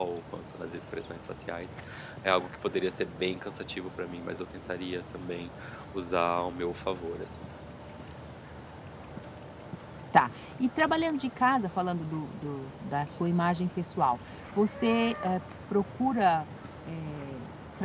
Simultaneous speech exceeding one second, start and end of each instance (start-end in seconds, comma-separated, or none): none